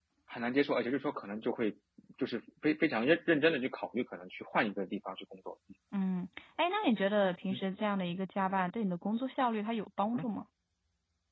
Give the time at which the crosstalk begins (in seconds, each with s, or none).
none